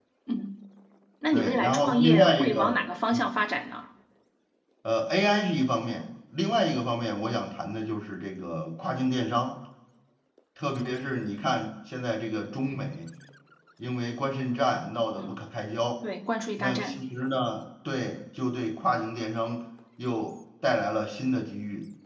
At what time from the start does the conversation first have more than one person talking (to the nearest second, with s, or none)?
1 s